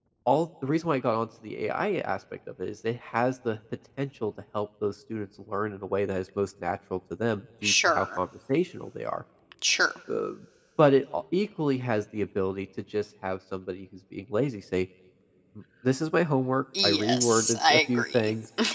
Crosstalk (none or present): present